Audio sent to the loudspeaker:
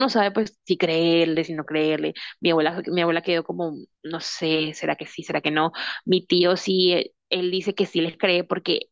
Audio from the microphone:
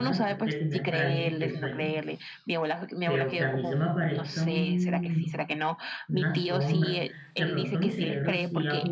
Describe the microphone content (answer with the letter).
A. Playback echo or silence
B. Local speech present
B